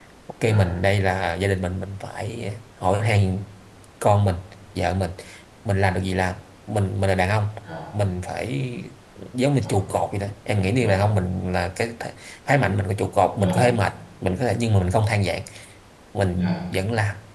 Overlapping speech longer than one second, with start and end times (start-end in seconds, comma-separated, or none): none